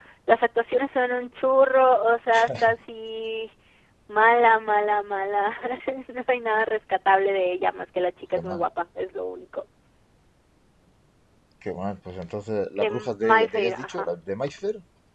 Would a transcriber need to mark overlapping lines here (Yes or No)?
Yes